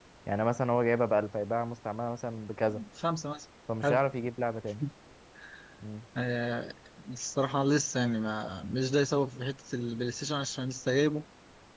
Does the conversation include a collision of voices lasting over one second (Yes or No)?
No